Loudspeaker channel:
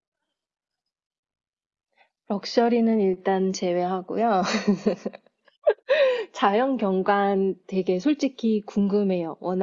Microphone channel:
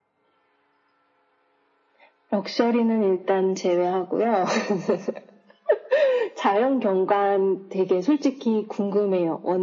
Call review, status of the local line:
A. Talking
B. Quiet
B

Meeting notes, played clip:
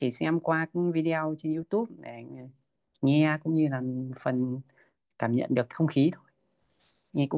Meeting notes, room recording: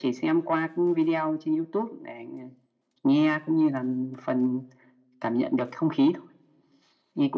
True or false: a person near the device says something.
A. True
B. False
B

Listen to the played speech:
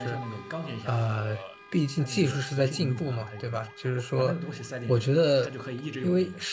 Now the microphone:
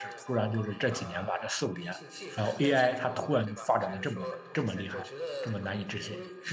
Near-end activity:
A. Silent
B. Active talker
B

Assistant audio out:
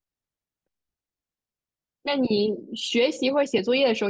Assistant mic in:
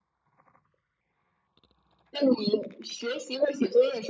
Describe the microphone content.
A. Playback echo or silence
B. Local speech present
A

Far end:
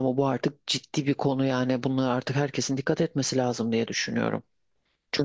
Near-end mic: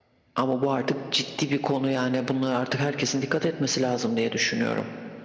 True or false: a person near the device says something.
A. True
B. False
B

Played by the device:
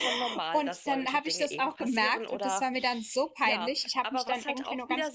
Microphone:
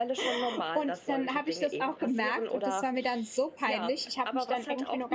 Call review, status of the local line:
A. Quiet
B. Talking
A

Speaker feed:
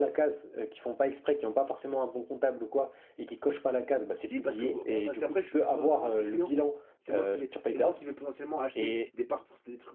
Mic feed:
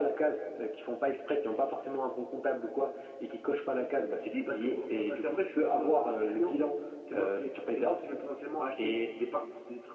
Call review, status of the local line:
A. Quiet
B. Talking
A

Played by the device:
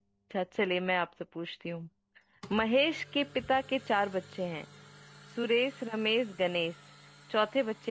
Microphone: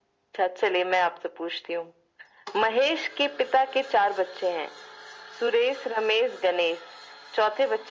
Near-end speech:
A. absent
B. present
A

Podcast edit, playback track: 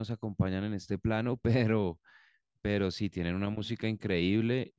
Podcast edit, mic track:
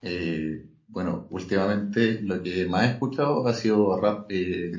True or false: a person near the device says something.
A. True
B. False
A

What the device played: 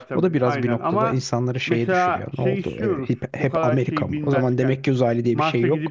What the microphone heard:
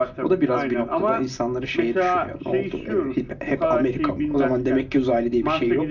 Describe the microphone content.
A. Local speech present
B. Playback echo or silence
B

